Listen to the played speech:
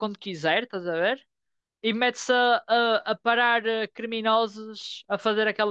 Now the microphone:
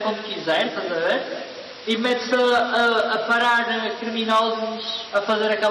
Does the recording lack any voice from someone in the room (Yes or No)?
Yes